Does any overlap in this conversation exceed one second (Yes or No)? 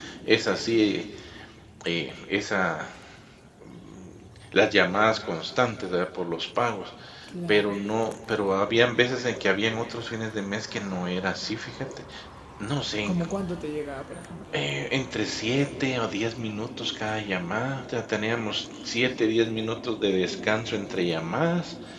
No